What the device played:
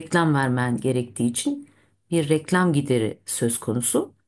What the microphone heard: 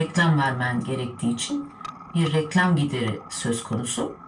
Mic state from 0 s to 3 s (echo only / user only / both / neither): echo only